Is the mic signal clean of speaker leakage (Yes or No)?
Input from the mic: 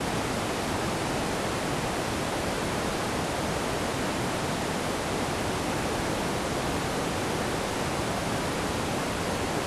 Yes